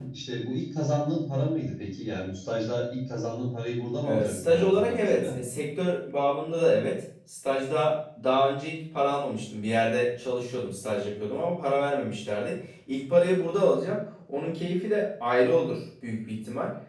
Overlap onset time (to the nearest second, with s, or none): 4 s